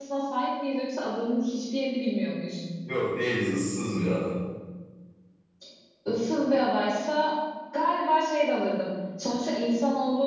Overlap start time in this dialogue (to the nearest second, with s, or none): none